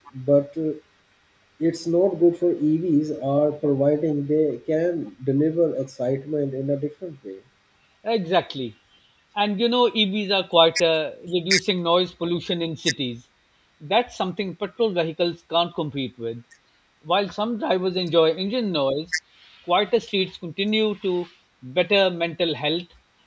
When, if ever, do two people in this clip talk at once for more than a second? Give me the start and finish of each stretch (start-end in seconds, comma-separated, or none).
none